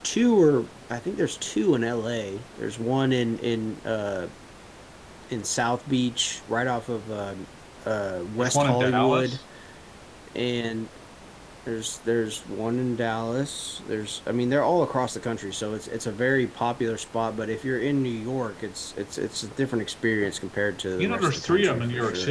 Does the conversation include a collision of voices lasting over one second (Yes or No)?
Yes